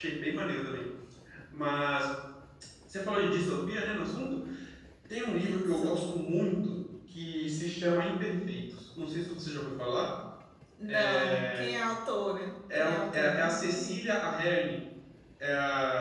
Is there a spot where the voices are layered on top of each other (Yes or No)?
Yes